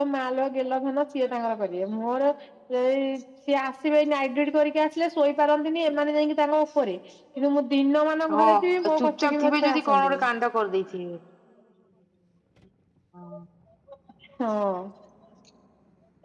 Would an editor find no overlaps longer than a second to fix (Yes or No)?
No